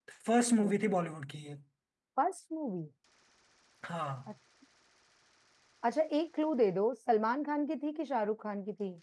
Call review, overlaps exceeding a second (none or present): none